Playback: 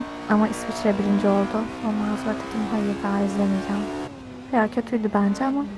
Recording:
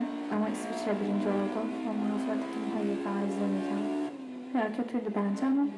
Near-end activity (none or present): none